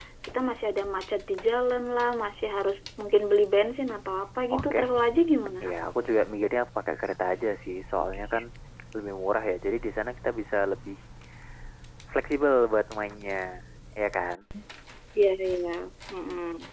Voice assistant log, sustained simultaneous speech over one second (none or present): none